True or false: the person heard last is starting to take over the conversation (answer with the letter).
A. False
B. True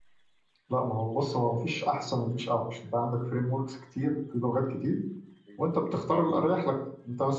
A